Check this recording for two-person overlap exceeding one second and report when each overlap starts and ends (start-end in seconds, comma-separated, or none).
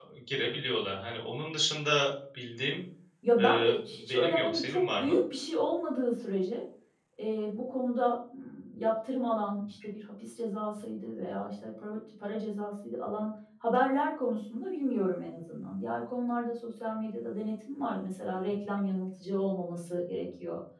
3.4-5.2